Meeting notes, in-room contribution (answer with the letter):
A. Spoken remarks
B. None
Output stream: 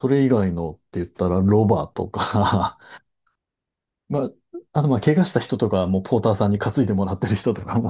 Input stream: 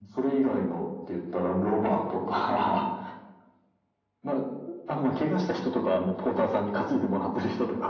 B